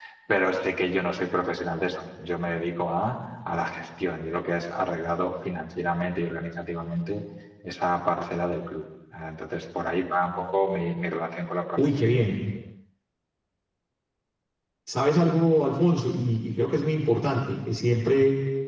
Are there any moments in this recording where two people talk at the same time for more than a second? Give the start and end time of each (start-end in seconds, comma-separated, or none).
none